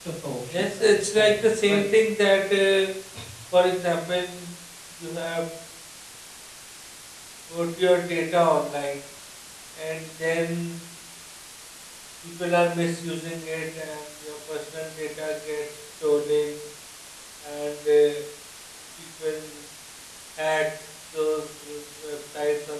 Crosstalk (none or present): present